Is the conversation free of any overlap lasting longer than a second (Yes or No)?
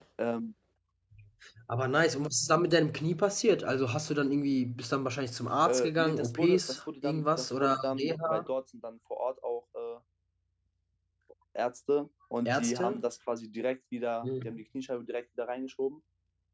No